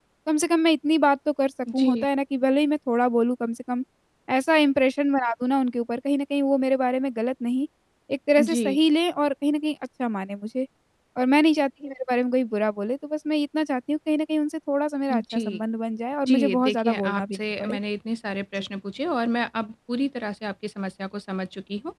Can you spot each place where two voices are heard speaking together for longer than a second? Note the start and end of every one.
16.3-17.8

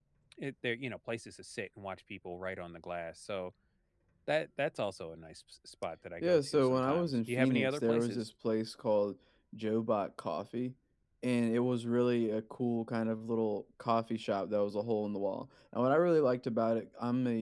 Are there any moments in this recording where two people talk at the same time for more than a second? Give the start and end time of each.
6.2-8.3

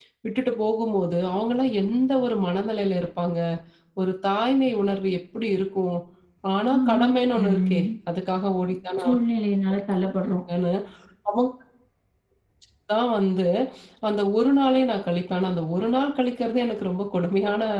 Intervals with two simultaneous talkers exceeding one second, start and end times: none

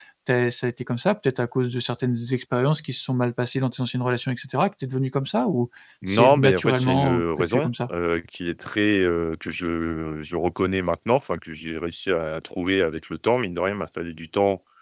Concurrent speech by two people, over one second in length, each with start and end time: 6.1-7.9

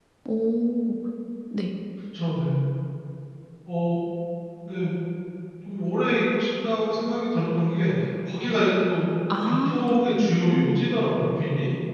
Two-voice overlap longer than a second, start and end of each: 9.4-10.9

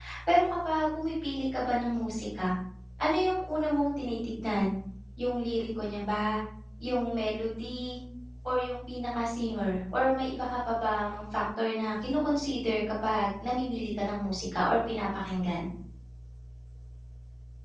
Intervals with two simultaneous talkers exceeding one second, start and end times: none

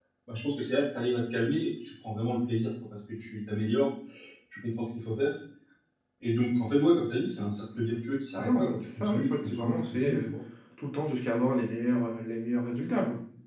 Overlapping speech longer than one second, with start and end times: 8.4-10.3

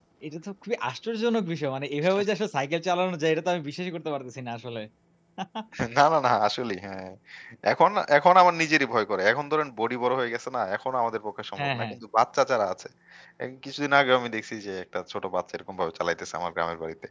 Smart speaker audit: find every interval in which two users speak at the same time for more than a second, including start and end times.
none

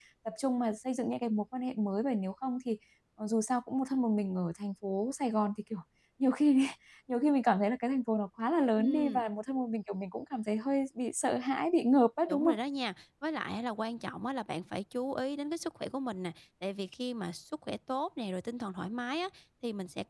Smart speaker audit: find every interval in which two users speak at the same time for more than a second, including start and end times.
none

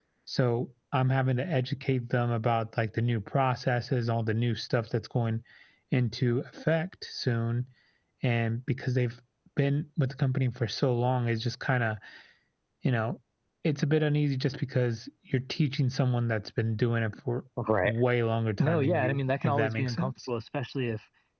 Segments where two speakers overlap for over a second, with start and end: 18.6-20.1

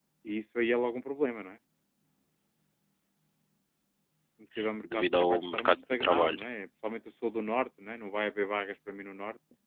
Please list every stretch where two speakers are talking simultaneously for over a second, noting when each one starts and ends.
4.9-6.4

